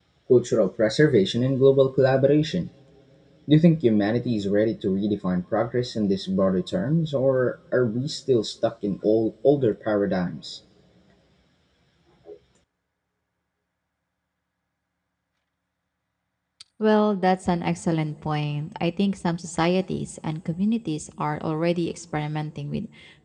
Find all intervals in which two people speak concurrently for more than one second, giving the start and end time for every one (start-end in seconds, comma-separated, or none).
none